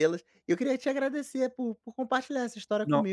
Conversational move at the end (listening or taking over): listening